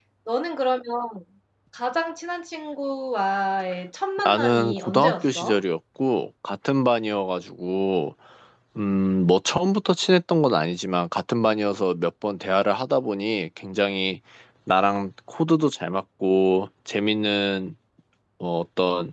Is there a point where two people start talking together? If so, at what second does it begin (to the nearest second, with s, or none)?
4 s